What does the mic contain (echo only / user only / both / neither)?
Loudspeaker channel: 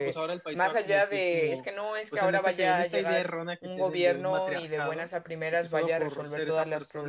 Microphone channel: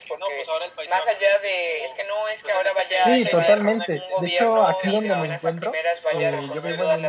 both